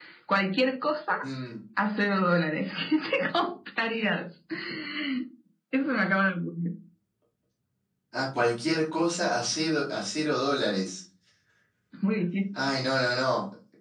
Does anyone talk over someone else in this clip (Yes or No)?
No